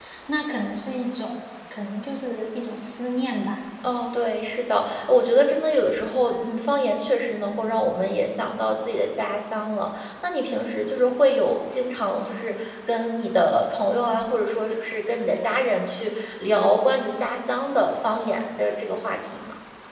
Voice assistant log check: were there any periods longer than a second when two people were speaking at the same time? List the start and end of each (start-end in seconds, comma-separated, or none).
none